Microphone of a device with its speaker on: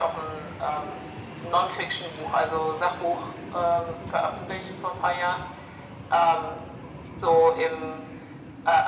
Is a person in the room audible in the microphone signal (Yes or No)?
No